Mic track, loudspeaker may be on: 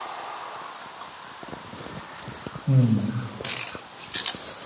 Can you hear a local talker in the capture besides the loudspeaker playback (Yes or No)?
Yes